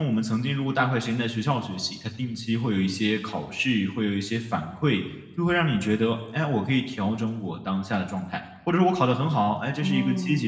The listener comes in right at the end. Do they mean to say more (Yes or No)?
No